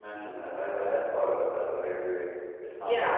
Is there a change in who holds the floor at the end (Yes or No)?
Yes